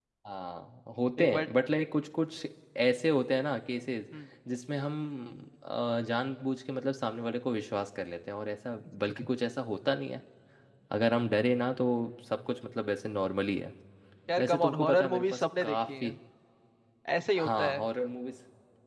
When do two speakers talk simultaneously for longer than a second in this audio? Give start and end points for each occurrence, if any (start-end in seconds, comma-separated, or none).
14.4-16.1